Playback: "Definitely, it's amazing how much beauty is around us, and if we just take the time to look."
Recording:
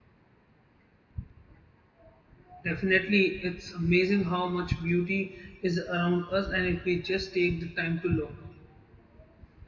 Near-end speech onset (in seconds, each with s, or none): none